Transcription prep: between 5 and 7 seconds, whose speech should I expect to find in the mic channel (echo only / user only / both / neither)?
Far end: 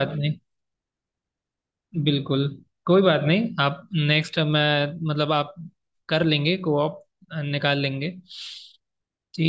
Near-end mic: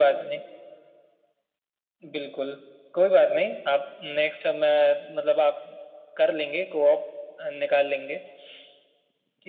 echo only